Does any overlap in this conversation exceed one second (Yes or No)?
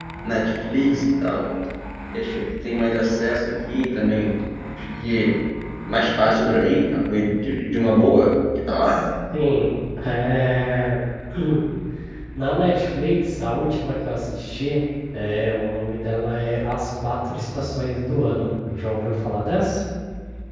No